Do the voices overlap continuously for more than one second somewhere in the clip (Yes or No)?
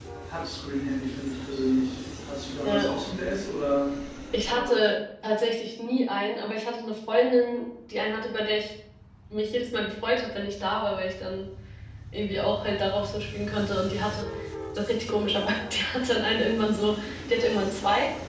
No